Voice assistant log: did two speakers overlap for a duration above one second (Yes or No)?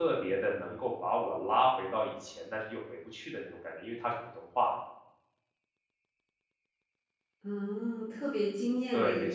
No